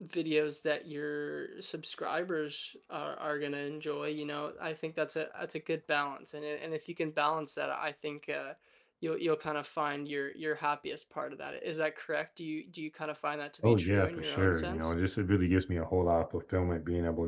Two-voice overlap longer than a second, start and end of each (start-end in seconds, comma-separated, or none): 13.6-14.9